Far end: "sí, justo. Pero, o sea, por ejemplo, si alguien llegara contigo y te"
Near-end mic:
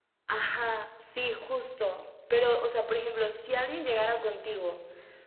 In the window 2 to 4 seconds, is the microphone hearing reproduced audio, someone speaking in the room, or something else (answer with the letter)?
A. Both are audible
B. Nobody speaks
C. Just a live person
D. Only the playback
D